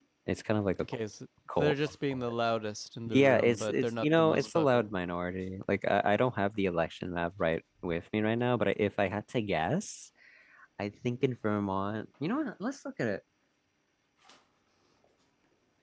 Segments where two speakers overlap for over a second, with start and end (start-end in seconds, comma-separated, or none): 3.1-4.9